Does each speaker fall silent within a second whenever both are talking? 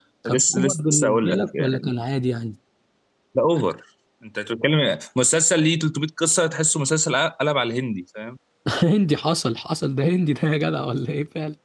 No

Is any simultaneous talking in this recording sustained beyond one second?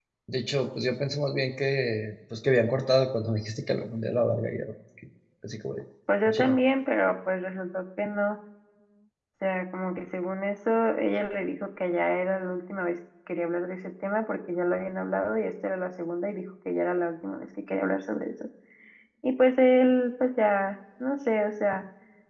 No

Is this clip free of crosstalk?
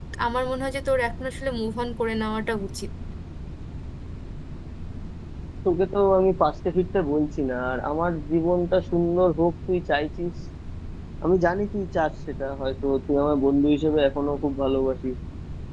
Yes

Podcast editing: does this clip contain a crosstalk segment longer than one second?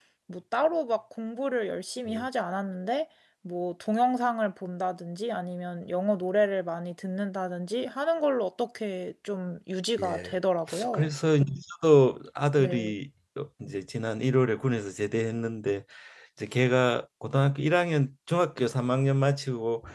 No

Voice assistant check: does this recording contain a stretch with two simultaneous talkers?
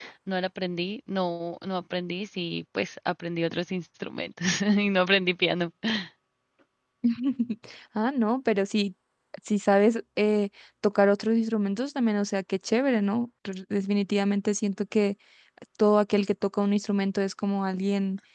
No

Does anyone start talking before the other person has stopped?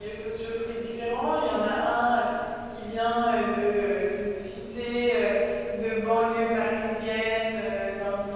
No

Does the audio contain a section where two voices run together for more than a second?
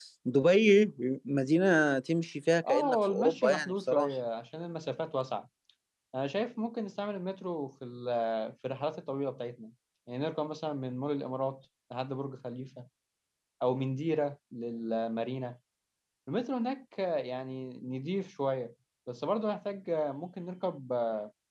Yes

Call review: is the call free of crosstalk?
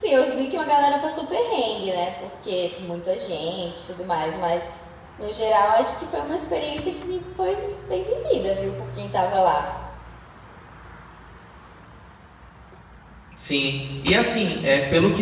Yes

